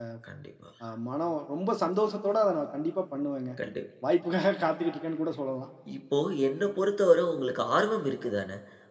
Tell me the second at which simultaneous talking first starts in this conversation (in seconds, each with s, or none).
none